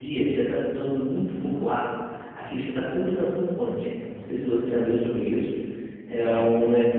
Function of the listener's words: listening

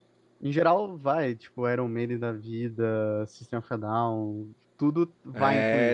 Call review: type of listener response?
taking over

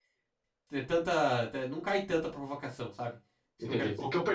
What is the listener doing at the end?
taking over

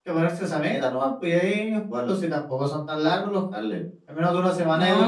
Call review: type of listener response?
taking over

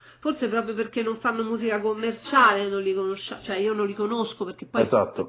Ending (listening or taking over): listening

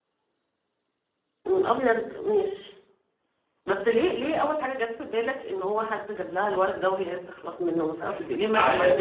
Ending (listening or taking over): taking over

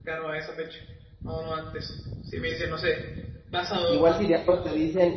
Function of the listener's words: taking over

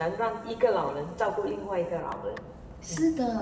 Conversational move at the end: taking over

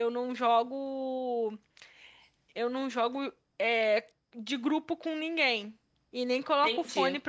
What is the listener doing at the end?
listening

